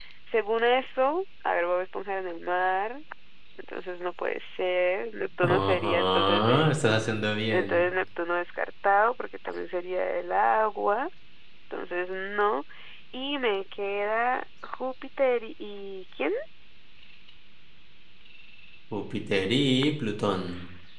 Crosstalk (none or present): present